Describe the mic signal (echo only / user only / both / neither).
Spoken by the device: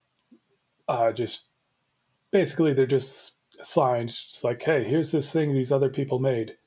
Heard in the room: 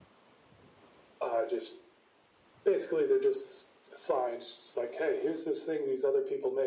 echo only